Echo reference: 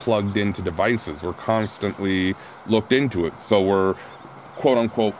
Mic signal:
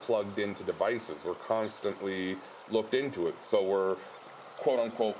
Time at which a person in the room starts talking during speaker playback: none

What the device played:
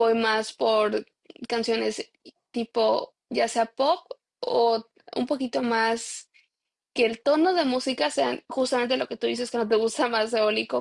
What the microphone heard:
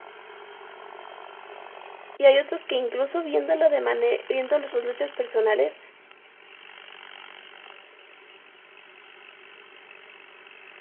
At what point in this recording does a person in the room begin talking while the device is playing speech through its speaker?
2.2 s

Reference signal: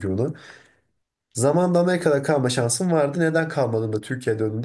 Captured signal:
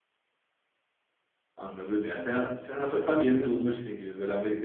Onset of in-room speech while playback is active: 1.5 s

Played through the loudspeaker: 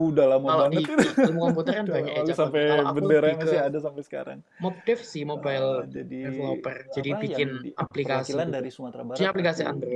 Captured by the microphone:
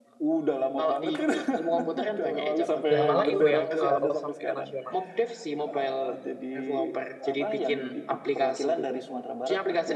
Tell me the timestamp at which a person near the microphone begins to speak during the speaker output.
2.9 s

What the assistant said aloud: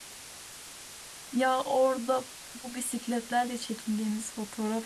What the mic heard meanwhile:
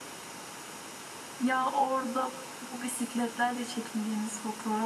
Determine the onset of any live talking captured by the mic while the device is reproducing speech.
none

